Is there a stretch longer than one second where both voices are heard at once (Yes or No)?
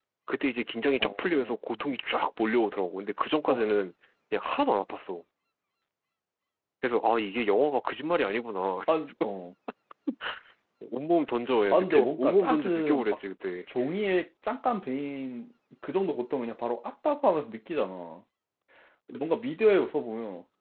Yes